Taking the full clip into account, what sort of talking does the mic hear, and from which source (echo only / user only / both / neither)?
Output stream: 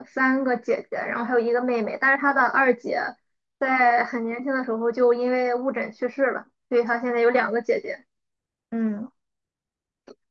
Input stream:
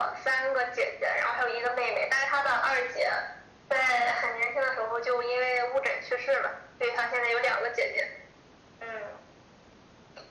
echo only